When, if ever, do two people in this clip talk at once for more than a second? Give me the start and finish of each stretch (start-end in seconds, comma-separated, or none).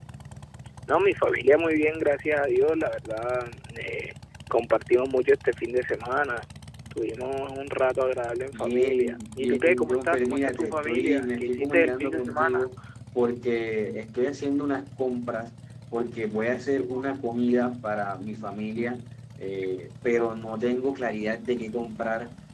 8.5-12.7